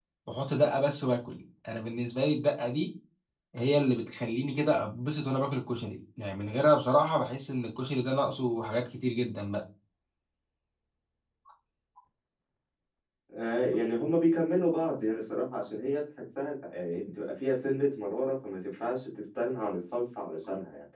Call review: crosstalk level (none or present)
none